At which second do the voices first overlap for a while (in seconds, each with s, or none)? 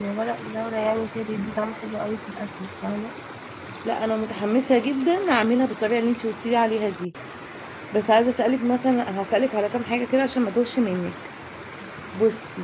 none